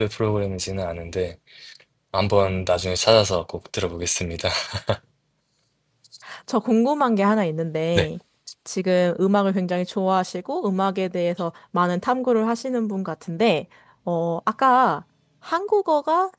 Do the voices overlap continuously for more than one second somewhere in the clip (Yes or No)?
No